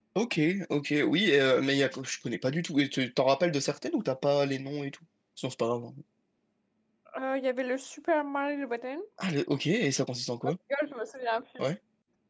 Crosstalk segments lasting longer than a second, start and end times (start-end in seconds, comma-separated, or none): none